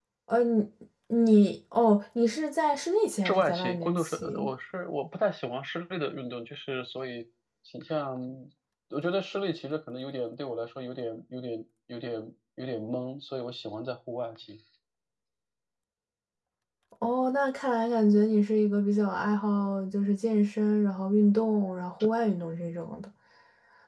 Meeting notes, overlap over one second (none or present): present